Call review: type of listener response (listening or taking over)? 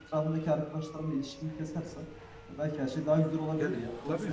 taking over